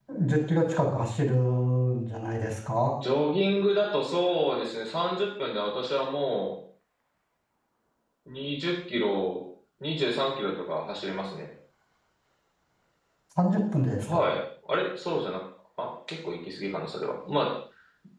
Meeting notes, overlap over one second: none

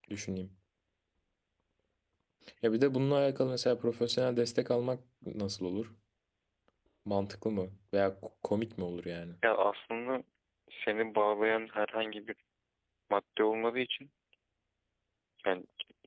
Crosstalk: none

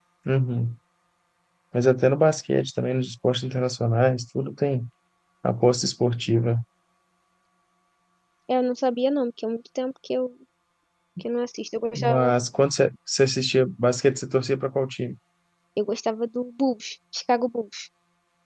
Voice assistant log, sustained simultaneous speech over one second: none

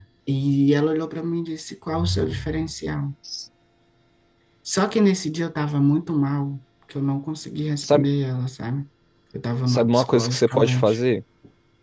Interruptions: present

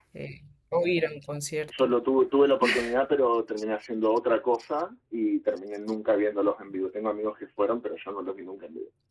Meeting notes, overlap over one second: none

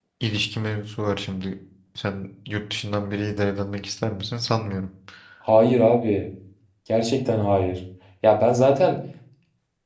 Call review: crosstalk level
none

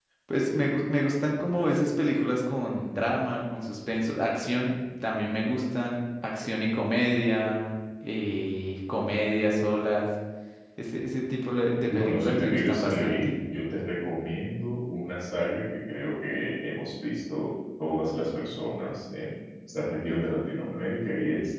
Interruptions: present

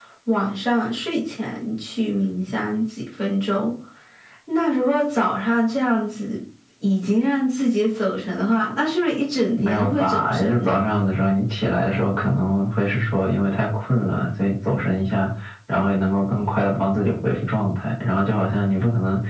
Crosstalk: present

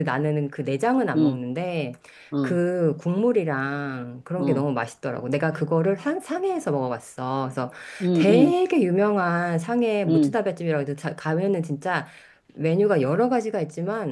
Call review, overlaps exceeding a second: none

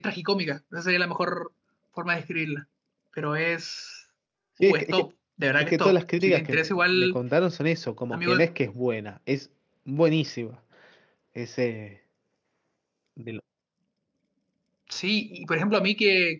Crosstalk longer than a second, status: present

